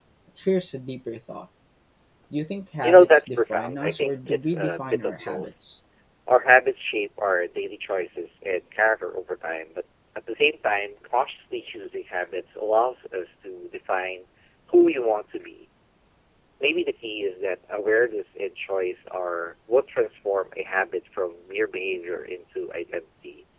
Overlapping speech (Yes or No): Yes